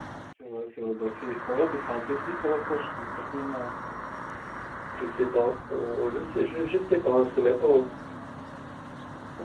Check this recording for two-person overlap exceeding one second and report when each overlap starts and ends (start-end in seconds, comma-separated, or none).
none